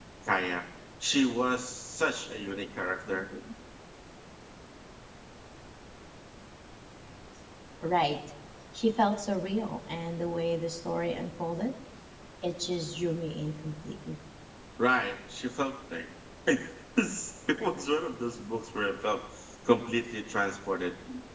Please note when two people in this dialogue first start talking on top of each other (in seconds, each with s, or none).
none